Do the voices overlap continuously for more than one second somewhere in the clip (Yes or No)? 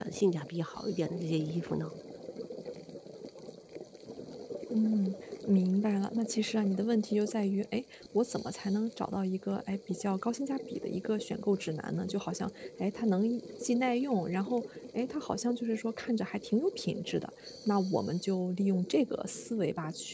No